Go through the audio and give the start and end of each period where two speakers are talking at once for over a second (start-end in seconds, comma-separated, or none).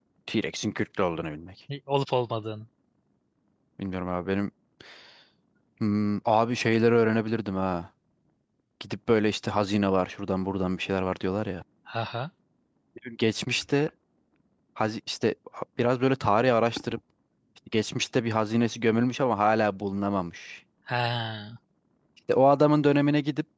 none